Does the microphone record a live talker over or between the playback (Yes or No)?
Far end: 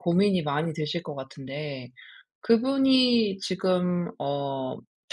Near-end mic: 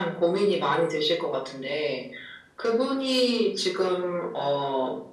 No